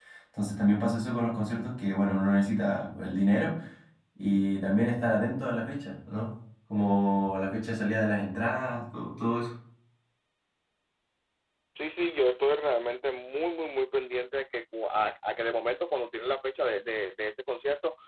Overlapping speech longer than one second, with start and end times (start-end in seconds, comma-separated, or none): none